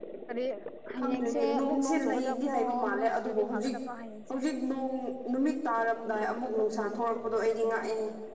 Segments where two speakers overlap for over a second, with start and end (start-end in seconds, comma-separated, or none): 1.0-3.7